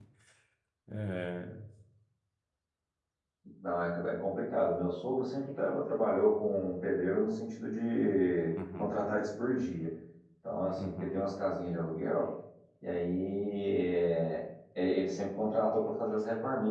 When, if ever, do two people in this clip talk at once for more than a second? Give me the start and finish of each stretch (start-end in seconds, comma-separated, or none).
none